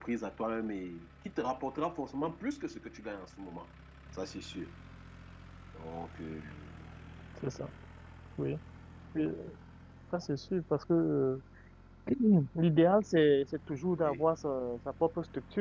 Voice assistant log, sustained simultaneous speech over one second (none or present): none